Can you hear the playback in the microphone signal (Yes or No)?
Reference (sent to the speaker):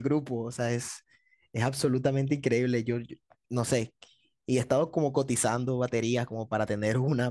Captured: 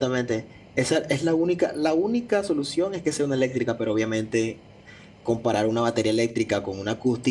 No